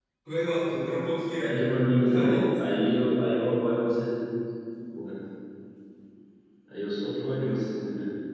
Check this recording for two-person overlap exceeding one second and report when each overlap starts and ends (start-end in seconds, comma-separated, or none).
none